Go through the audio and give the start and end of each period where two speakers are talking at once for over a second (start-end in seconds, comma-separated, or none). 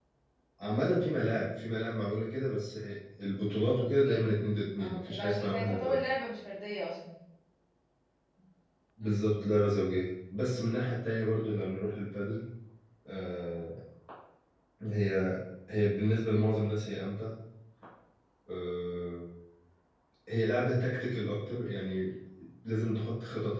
4.8-6.0